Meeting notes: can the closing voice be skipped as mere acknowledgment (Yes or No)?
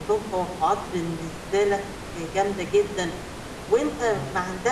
Yes